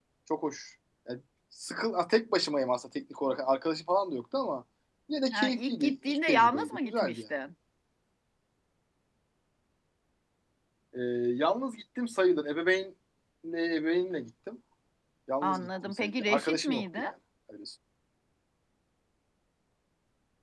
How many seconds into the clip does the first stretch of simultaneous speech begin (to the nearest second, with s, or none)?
5 s